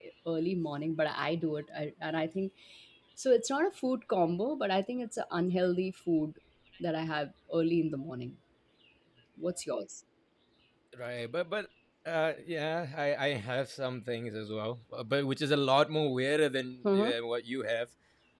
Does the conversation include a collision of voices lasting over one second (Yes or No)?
No